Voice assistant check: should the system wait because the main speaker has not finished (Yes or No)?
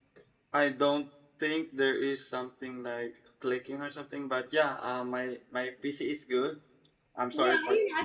No